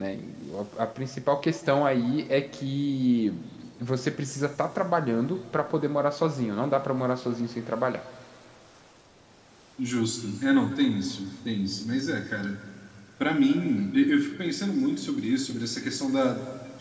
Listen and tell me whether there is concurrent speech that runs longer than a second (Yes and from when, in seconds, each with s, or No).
No